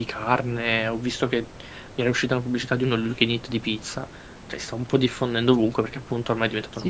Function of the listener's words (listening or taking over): taking over